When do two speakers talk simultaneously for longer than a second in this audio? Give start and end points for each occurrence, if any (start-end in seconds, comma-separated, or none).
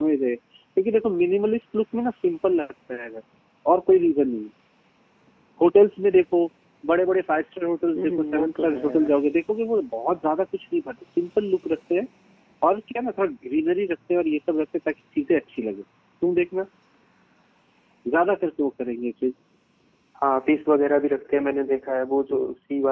8.0-9.2